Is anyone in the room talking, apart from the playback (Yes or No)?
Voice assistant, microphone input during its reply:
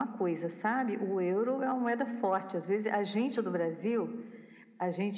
No